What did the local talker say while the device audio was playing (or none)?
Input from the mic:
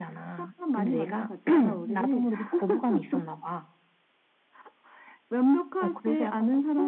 none